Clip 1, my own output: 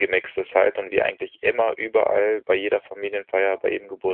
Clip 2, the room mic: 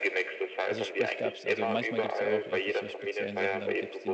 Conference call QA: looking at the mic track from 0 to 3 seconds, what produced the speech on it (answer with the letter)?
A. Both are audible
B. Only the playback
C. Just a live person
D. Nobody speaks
A